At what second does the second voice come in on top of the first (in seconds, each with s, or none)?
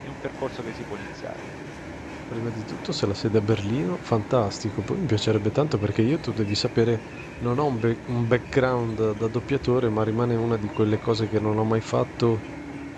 none